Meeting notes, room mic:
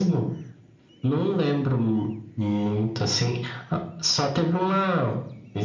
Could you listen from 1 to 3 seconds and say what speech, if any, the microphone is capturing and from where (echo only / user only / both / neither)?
echo only